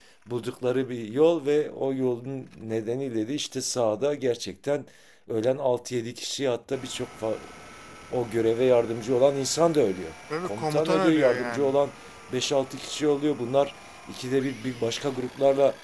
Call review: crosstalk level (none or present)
present